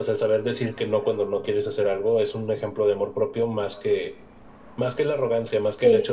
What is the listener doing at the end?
listening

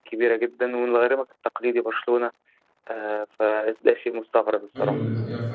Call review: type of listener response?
taking over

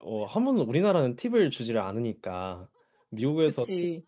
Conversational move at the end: listening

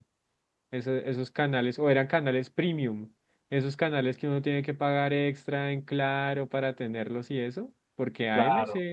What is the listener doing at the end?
listening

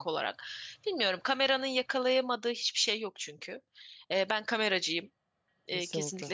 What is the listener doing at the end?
taking over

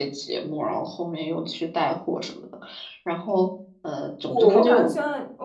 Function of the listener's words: taking over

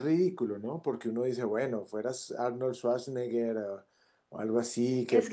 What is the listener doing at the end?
taking over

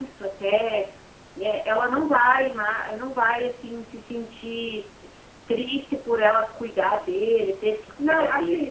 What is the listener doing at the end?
taking over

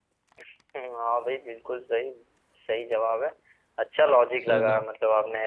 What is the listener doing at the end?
listening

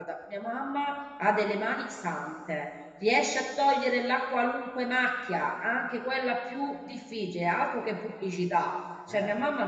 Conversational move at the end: listening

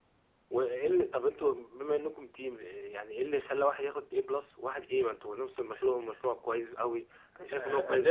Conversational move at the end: taking over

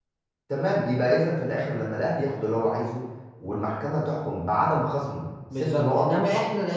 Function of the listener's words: taking over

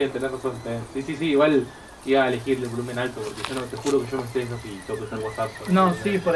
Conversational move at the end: taking over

